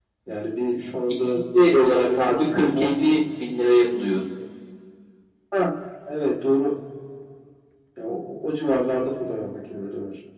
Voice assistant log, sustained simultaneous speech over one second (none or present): present